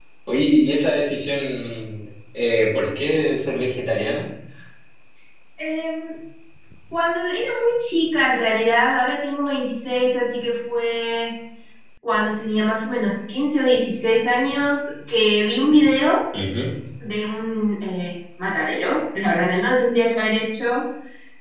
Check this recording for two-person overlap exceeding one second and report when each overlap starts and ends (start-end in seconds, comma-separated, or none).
none